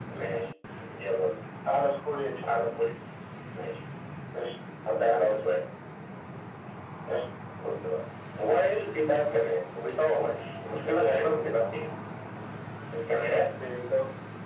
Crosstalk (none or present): none